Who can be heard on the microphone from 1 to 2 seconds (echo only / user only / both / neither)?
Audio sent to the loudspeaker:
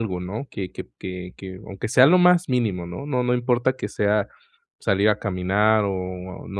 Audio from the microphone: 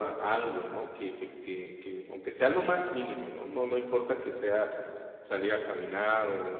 echo only